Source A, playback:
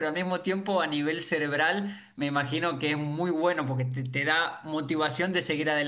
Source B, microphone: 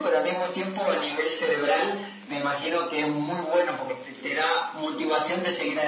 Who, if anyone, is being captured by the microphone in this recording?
echo only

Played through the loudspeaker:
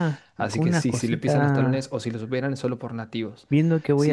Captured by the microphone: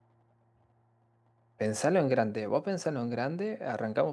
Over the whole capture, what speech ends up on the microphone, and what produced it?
user only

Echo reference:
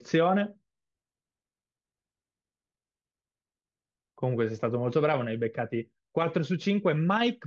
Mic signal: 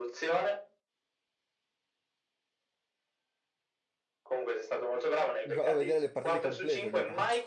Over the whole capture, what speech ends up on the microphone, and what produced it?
both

